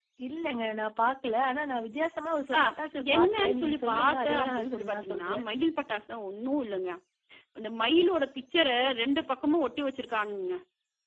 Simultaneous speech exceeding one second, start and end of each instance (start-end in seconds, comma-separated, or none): 3.1-5.4